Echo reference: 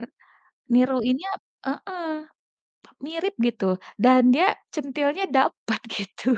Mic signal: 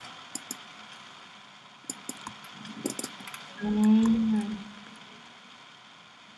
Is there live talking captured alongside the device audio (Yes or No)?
Yes